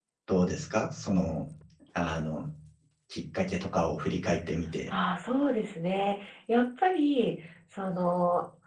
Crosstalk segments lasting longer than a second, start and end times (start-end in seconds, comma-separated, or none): none